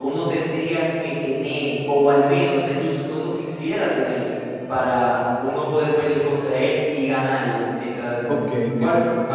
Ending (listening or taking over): taking over